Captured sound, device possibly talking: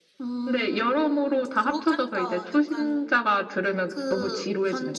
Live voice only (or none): none